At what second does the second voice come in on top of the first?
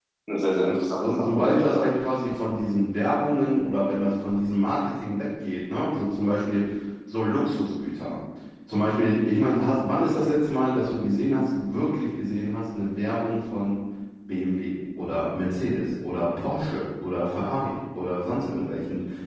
0.6 s

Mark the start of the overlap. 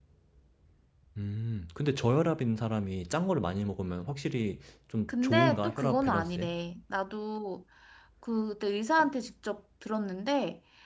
5.1 s

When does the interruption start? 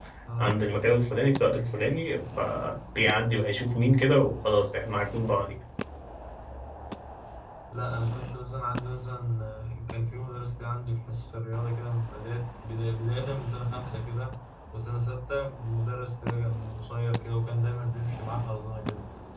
none

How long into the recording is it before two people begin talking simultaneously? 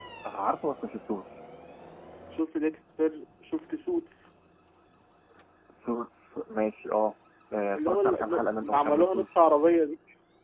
7.7 s

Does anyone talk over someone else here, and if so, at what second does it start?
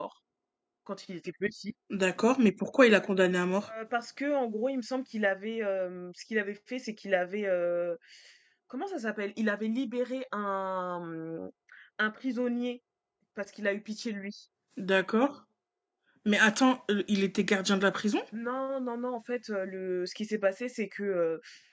none

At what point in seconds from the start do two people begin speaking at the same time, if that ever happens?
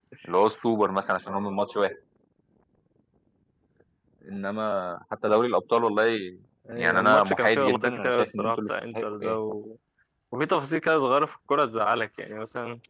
6.8 s

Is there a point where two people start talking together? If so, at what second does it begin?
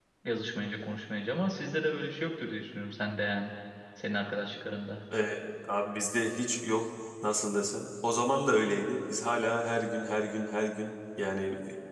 none

